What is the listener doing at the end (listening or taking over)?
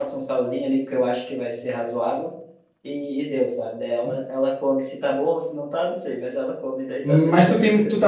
taking over